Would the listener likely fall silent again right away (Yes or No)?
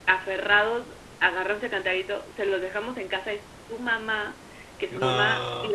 Yes